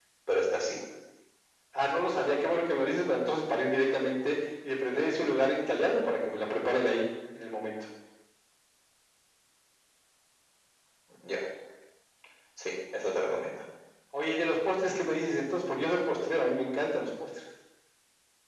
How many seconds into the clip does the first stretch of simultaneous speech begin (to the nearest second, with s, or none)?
none